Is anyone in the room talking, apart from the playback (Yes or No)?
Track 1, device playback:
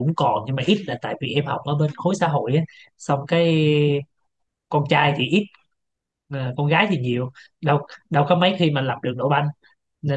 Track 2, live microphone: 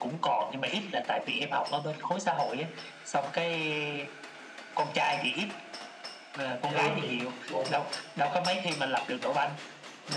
Yes